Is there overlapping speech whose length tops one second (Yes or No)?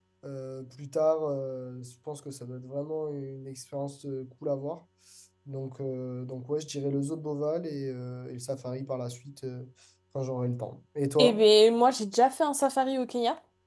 No